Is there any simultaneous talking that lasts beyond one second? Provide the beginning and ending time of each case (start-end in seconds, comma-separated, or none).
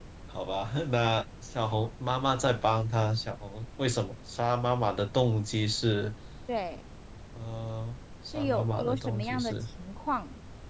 8.3-9.6